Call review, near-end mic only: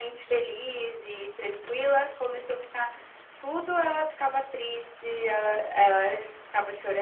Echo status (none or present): present